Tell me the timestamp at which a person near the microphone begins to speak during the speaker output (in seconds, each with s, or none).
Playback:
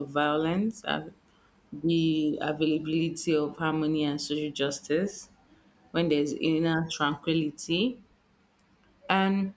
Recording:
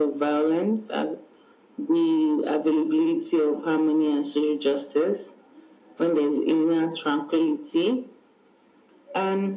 none